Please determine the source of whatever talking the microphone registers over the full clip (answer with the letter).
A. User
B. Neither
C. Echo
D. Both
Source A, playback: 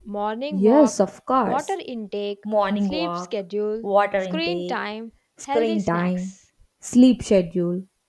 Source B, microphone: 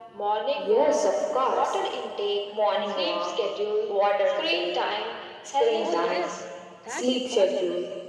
D